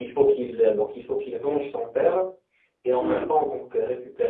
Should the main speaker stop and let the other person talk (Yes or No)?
No